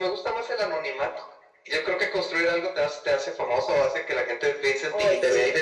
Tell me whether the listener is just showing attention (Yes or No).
Yes